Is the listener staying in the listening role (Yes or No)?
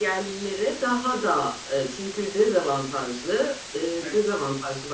Yes